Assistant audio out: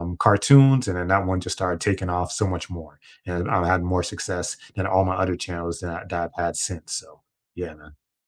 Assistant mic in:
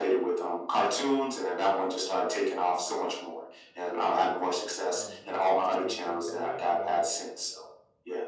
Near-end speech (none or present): present